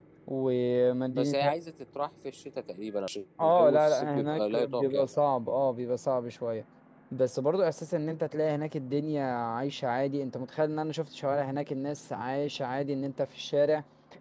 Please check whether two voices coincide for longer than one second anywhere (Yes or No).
Yes